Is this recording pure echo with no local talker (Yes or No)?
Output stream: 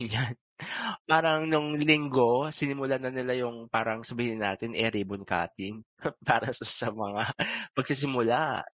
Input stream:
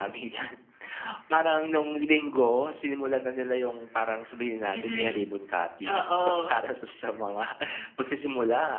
No